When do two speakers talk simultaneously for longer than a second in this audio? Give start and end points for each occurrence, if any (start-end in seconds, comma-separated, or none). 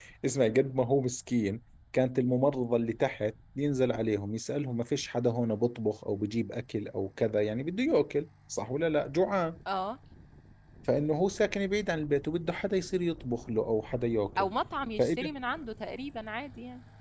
none